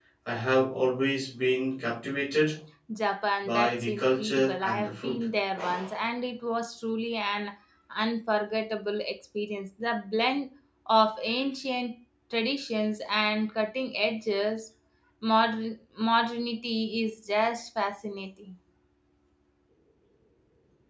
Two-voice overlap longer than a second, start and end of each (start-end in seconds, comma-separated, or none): 3.4-5.3